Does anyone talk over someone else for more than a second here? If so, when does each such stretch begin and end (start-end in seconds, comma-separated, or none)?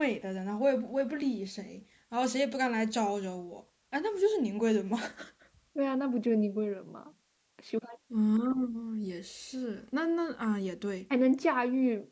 none